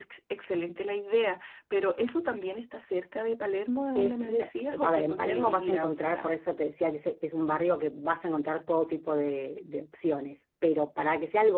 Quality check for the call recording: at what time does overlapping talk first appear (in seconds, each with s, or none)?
4.0 s